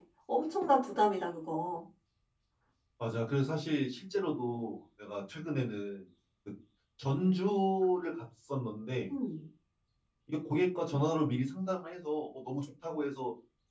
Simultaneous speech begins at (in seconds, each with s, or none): none